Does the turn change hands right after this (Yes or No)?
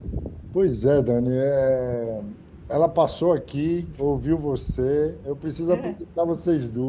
No